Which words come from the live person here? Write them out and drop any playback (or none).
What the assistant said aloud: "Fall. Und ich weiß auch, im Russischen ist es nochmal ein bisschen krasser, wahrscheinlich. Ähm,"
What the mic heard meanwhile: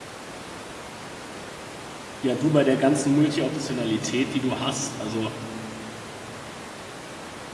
Ja, du bei der ganzen Multi-Optionalität, die du hast, also